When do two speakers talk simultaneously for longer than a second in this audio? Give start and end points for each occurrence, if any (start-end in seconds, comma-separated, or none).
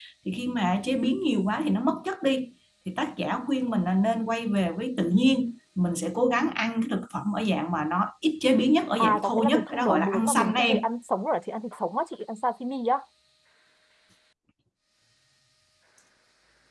9.0-10.8